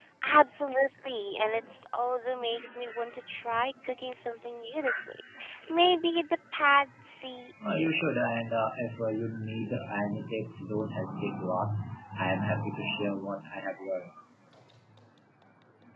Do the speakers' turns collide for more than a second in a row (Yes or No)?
No